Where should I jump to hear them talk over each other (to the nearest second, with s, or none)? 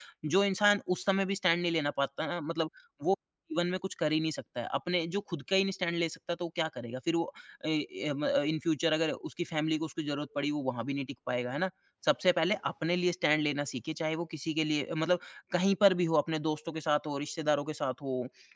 none